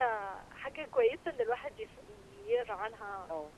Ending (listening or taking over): listening